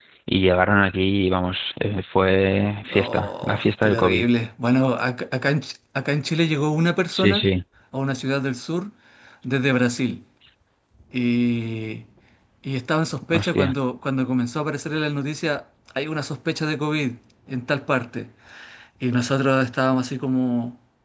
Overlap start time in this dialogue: 3 s

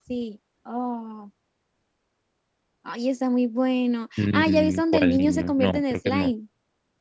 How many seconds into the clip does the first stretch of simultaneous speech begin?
4 s

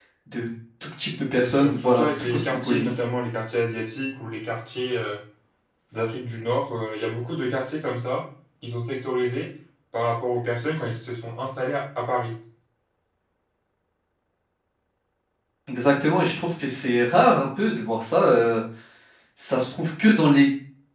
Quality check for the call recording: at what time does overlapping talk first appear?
1 s

